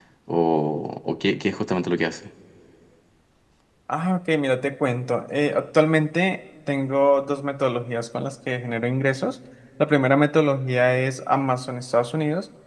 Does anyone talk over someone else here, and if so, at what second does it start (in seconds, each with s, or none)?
none